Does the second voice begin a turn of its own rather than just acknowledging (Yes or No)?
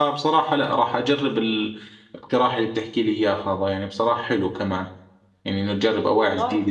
No